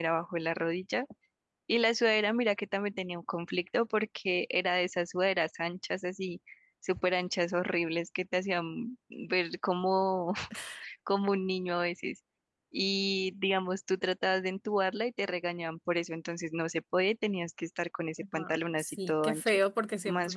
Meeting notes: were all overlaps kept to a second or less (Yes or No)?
No